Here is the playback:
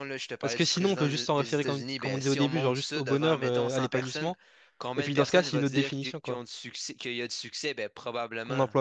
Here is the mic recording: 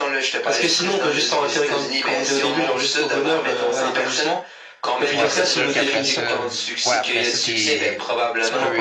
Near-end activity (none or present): present